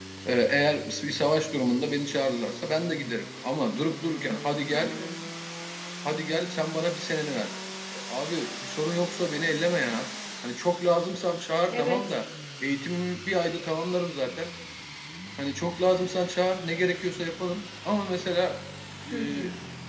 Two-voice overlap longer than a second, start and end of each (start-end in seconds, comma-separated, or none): none